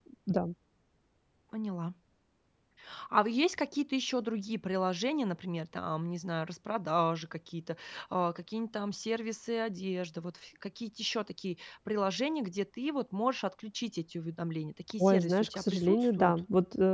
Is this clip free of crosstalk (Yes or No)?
No